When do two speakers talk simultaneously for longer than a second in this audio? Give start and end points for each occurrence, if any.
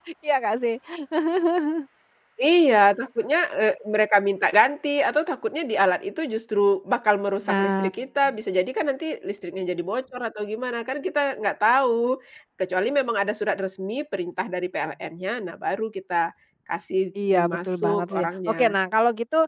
17.5-18.8

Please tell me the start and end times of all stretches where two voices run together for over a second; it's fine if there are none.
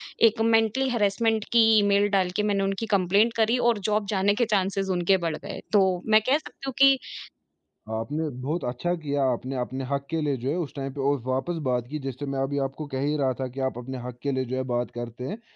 none

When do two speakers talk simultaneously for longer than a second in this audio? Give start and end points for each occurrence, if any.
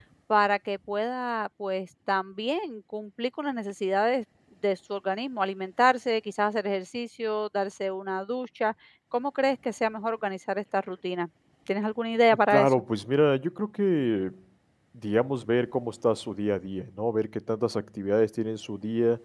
none

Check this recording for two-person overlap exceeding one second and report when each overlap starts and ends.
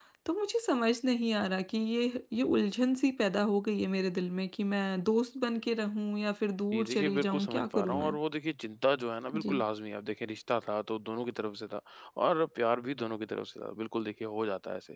6.7-8.2

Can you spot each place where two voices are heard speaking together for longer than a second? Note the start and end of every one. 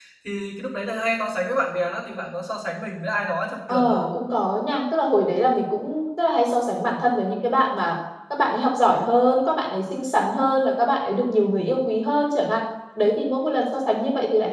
none

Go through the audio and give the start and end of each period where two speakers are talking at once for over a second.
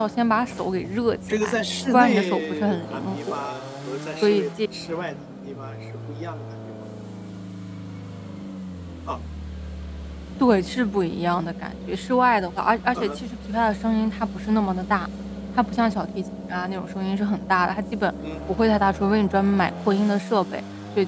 1.9-3.5

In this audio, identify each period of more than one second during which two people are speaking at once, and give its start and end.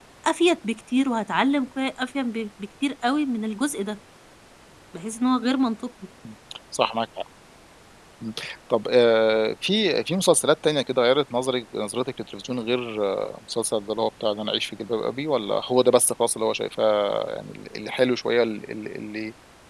none

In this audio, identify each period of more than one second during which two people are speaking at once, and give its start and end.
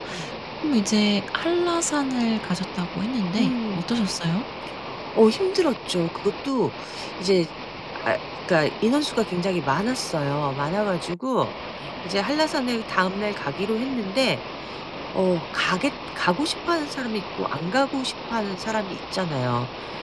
none

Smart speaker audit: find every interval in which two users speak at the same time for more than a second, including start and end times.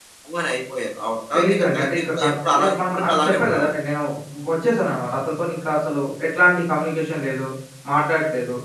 1.4-3.7

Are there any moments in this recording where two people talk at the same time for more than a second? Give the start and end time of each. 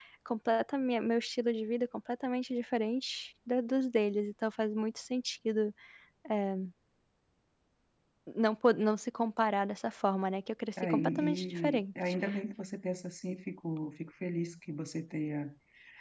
10.9-12.1

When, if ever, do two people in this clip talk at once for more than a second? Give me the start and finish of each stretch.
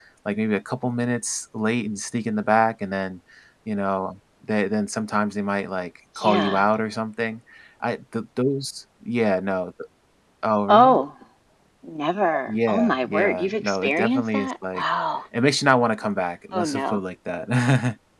12.5-14.8

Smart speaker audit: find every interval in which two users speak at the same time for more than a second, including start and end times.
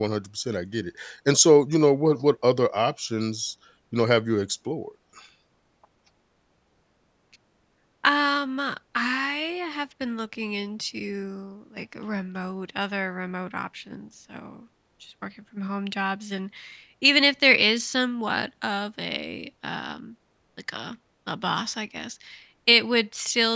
none

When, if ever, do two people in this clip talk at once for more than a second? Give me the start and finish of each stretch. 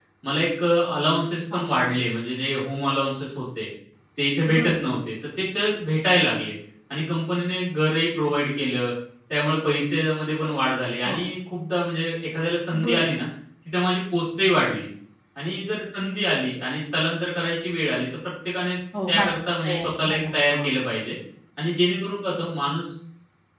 19.1-20.7

